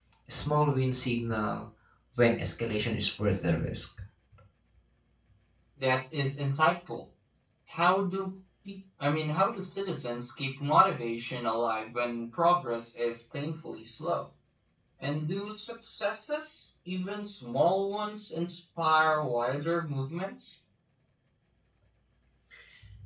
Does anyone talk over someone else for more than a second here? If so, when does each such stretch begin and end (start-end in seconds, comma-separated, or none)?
none